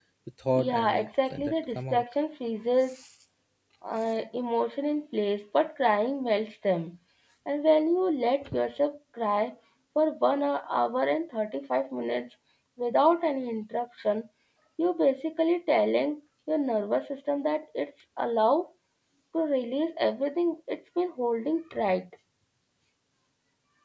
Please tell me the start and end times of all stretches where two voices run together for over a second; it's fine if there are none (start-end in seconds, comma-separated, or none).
0.6-2.0